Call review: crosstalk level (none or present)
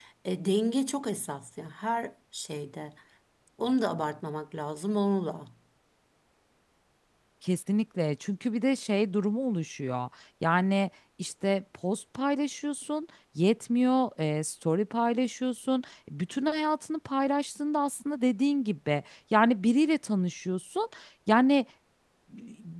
none